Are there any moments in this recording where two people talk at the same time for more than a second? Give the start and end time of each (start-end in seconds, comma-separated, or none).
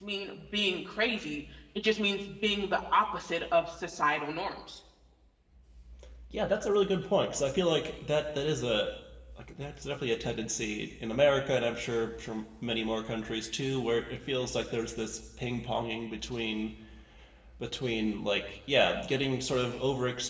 none